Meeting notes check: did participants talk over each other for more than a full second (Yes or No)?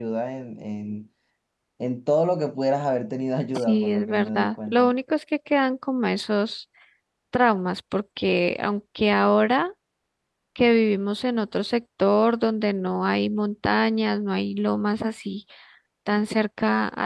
Yes